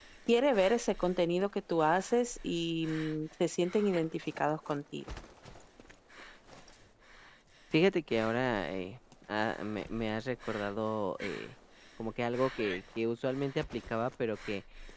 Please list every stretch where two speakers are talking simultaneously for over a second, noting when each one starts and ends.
none

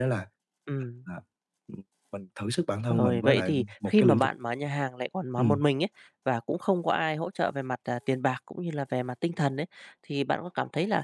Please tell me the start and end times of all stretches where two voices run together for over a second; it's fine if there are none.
2.9-4.3

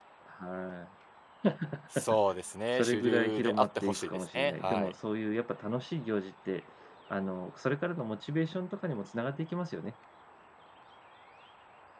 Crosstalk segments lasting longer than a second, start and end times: 2.8-4.9

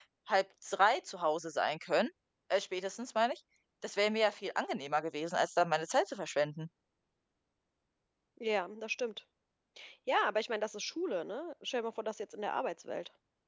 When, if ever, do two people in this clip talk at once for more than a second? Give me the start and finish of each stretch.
none

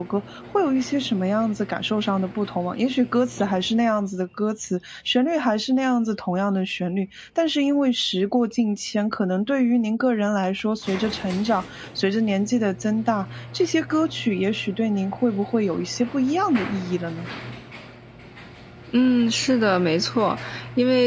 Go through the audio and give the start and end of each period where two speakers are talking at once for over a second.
none

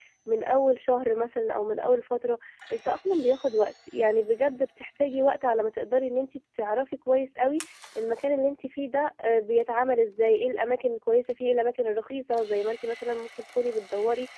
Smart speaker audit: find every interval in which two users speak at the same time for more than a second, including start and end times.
none

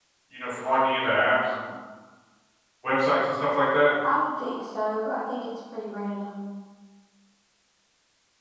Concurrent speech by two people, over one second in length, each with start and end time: none

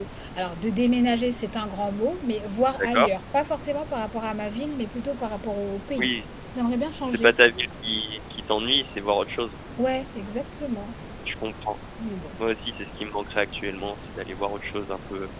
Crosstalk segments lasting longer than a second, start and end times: none

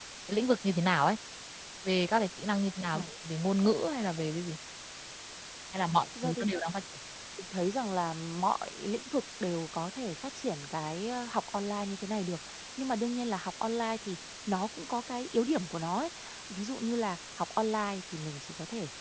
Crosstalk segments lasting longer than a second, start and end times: none

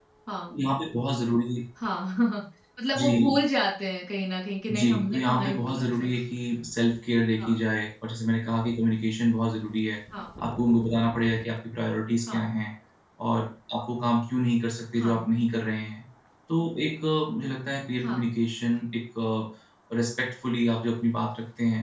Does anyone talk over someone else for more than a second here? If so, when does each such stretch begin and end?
4.7-6.1

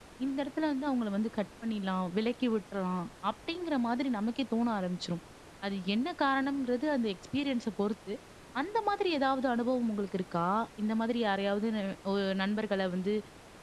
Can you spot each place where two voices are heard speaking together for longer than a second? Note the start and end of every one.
none

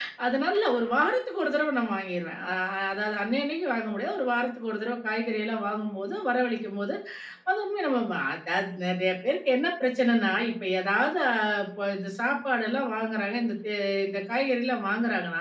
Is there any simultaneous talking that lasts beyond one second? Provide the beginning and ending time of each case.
none

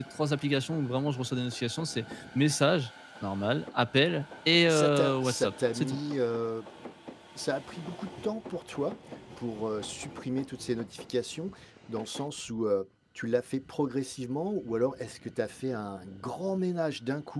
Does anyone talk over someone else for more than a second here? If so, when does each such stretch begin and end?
4.7-6.0

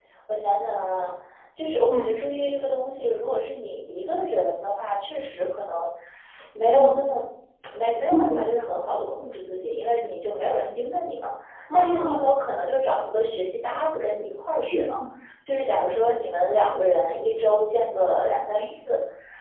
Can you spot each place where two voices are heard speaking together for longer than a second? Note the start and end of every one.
none

